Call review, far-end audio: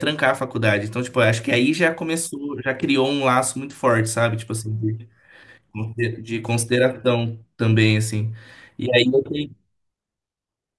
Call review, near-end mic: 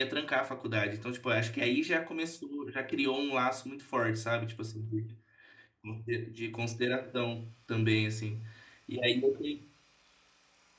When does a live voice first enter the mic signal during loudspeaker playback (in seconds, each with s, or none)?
none